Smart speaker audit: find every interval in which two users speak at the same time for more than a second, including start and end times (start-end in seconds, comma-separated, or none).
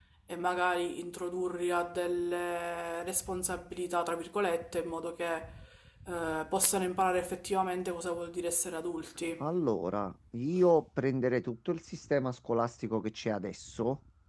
none